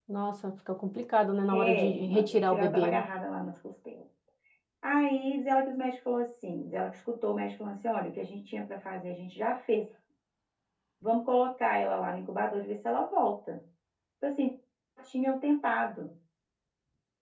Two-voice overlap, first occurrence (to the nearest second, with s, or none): 2 s